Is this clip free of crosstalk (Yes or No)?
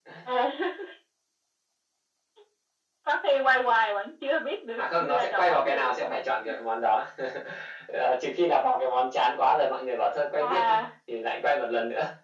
No